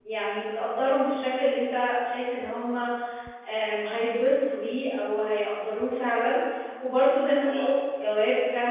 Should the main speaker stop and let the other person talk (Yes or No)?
No